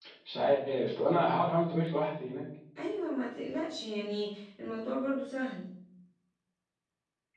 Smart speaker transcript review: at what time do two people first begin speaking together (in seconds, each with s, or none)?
none